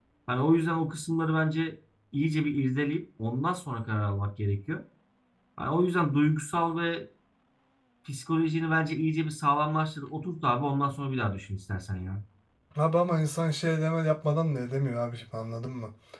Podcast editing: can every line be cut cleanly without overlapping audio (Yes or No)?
Yes